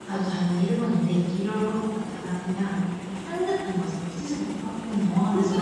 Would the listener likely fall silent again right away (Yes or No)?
No